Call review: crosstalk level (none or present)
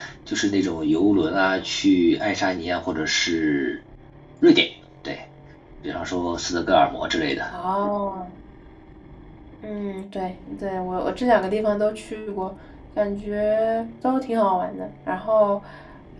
none